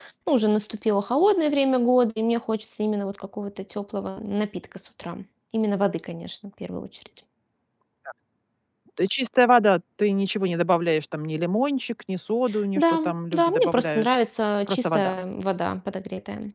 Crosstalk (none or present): present